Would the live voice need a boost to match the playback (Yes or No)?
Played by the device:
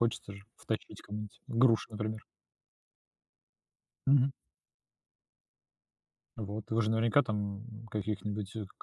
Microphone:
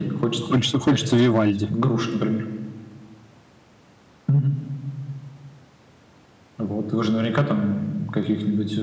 No